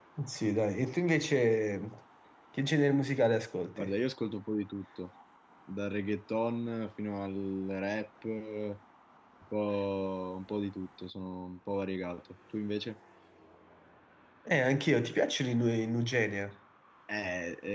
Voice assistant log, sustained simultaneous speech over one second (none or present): none